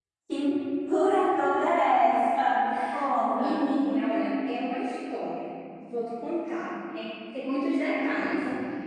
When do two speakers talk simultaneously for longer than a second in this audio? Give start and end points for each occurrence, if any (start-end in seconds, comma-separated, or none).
none